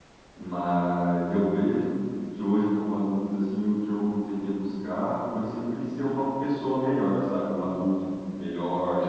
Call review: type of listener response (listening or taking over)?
listening